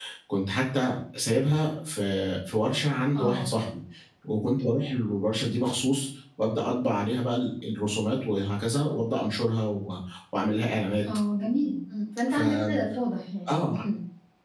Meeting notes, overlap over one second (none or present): none